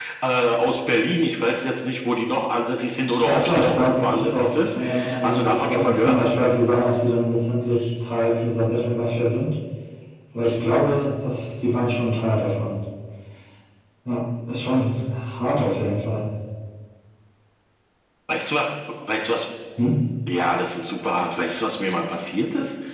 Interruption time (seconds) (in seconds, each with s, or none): 3.2 s